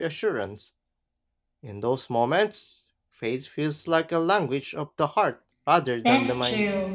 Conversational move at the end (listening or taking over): taking over